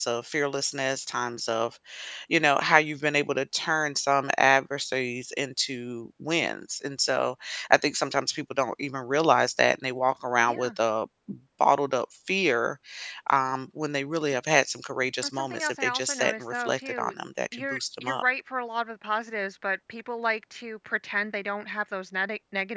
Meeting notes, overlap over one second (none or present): present